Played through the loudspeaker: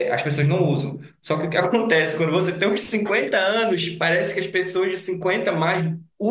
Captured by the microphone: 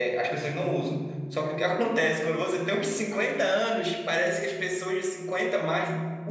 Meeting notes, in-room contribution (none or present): none